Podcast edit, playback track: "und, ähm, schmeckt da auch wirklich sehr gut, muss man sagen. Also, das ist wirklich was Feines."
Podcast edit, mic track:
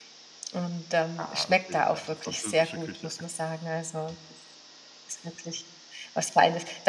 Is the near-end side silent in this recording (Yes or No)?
No